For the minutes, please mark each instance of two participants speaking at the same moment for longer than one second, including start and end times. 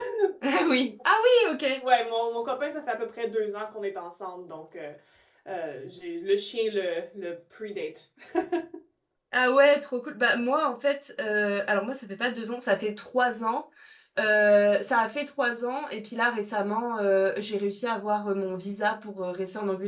none

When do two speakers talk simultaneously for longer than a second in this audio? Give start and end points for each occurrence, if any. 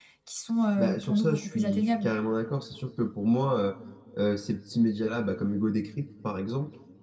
0.8-2.1

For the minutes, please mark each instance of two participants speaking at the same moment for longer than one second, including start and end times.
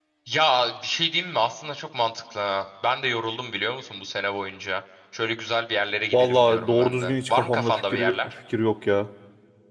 6.1-8.3

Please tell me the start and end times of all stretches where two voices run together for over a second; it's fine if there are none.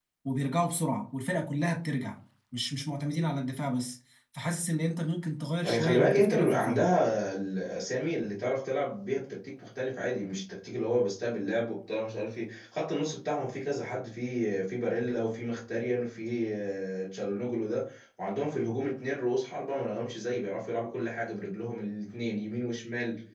5.6-6.9

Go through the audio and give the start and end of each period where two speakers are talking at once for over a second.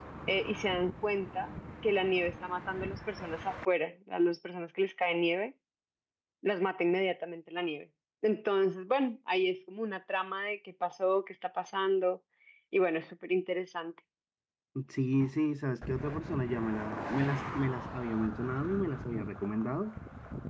none

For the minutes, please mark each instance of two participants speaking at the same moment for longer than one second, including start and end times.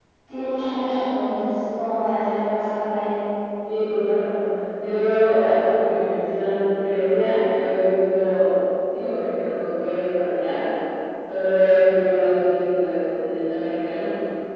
none

